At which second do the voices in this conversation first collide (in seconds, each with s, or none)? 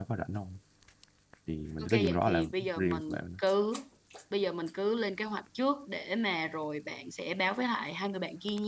1.8 s